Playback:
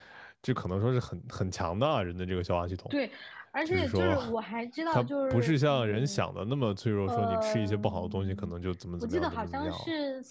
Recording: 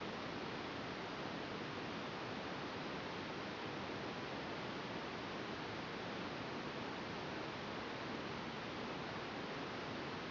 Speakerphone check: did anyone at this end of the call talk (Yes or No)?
No